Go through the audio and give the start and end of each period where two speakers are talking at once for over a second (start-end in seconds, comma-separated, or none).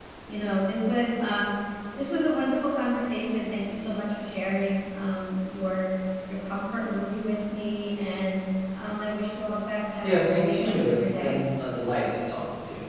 10.0-11.4